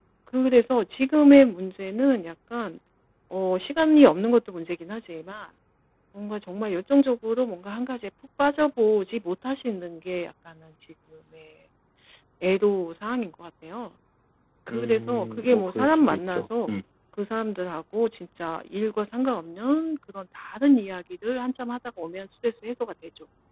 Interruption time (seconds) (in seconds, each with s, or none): 14.7 s